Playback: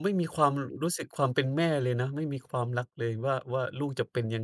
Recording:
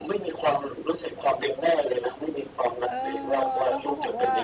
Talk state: both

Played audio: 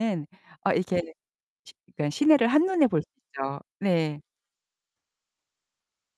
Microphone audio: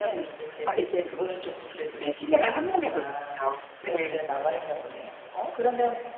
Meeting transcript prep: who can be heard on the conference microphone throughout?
both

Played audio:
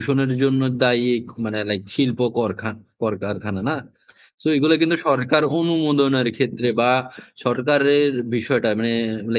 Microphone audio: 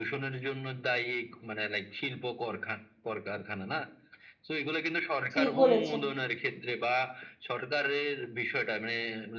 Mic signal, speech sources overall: both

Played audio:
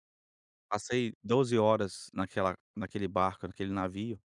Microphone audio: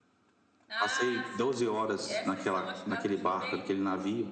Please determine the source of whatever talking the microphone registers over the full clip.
both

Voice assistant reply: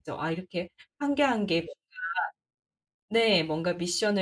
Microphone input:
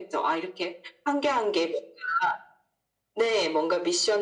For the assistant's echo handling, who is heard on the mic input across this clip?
echo only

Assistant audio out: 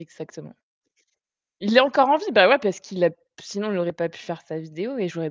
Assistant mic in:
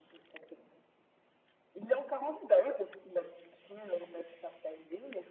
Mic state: echo only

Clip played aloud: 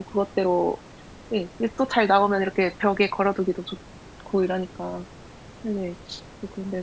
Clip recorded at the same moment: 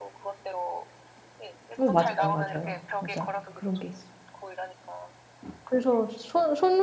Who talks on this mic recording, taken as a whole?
both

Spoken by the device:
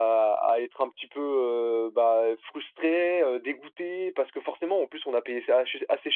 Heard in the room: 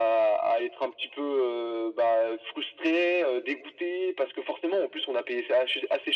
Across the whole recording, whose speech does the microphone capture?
echo only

